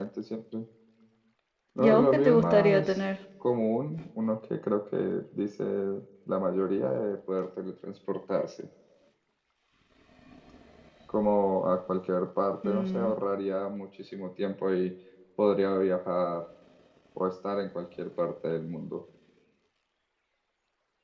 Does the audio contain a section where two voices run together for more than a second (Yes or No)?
Yes